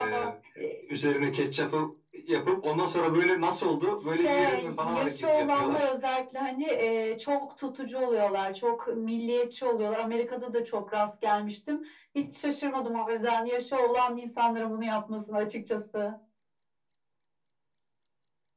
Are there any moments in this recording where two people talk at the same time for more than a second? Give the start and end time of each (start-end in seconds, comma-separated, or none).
4.2-5.9